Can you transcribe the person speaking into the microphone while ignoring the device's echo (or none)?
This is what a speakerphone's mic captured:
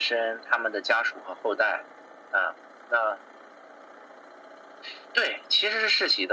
none